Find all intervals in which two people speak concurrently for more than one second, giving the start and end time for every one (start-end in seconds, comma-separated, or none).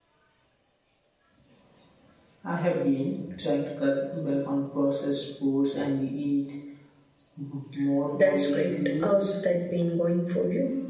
8.1-9.3